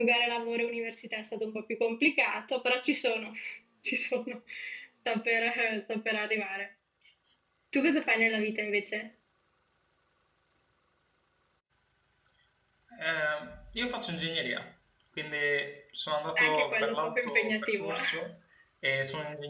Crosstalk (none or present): present